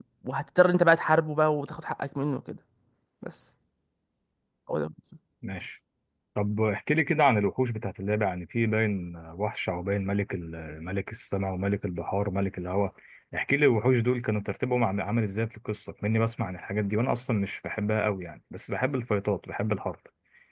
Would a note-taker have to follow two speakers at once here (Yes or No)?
No